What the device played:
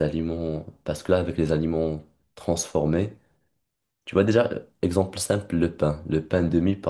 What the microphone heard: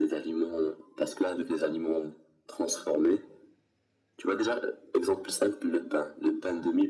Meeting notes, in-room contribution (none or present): none